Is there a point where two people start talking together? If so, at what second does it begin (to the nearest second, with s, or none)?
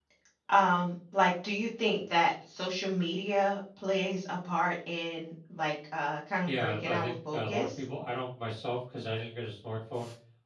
6 s